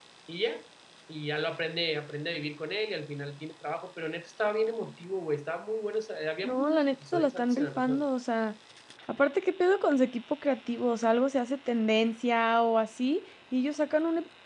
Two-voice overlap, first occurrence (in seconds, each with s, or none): 6.4 s